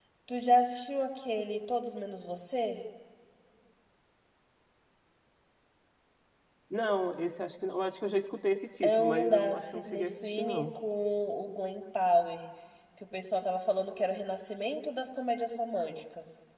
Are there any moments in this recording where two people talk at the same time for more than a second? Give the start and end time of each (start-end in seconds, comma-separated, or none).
8.8-10.7